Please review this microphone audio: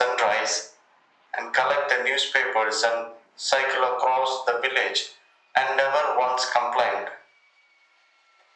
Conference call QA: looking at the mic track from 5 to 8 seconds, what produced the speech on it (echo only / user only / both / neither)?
echo only